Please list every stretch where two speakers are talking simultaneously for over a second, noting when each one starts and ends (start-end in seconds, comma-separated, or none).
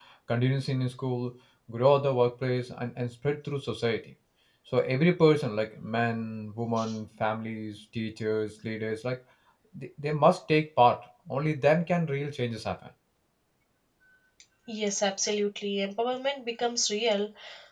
none